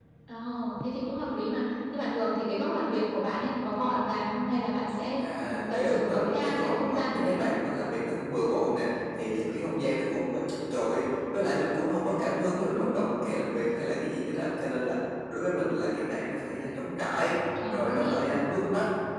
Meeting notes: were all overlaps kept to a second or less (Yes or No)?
No